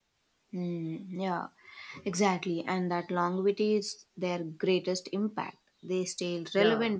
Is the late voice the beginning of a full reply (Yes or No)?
No